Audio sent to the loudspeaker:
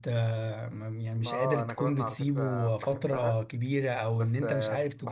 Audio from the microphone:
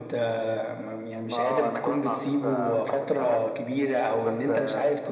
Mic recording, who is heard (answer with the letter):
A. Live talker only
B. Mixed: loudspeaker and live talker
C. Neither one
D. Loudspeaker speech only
B